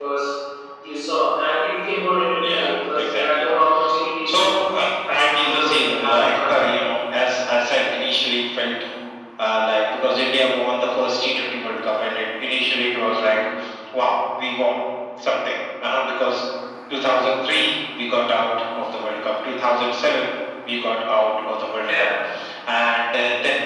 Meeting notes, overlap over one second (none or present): present